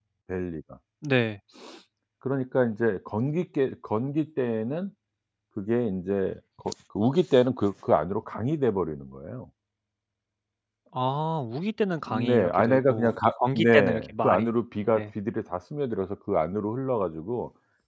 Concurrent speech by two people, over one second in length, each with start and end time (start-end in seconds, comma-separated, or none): 12.1-14.5